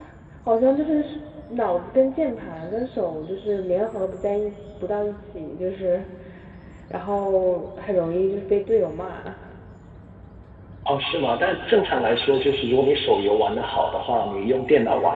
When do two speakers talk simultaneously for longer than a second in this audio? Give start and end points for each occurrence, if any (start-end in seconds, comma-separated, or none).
none